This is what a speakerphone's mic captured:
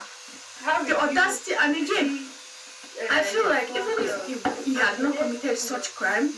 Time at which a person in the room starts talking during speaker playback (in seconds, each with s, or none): none